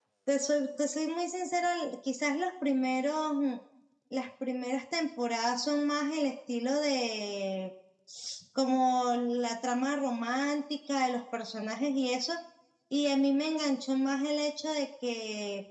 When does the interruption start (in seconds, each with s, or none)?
none